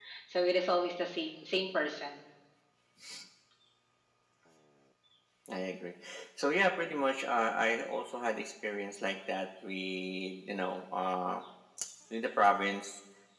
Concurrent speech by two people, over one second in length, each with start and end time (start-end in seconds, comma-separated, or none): none